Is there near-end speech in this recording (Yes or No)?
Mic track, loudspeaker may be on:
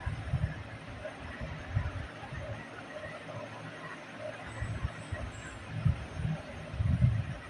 No